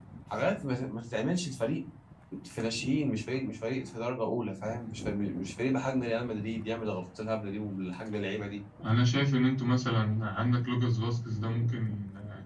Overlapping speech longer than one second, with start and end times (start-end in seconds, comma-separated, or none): none